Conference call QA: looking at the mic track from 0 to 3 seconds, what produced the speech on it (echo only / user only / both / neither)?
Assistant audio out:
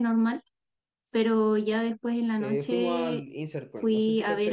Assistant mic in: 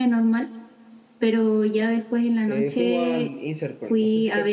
echo only